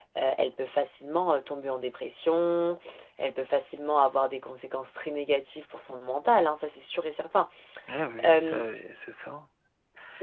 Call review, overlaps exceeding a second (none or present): none